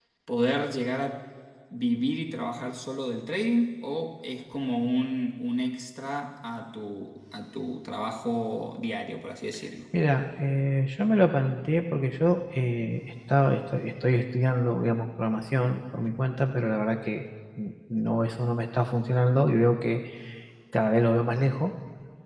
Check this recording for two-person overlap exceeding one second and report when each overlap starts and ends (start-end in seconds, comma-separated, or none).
none